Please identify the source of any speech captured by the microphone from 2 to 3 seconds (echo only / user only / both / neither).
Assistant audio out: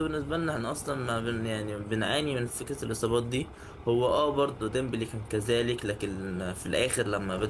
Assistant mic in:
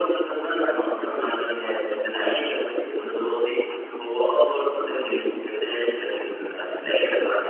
echo only